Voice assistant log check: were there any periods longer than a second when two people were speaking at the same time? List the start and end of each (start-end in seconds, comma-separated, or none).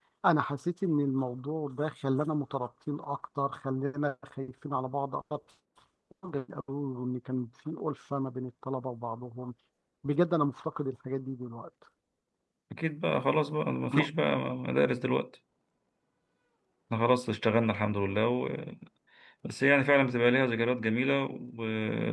none